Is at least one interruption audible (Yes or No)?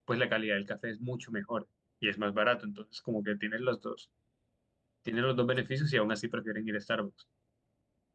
No